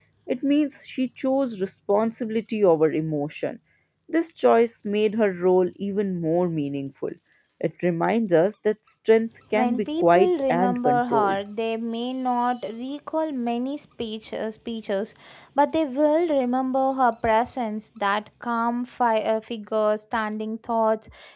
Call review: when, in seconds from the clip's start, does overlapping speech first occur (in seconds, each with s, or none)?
9.5 s